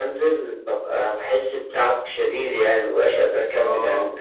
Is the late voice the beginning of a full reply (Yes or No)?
Yes